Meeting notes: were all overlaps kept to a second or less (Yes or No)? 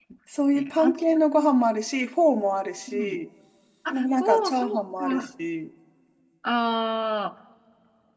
No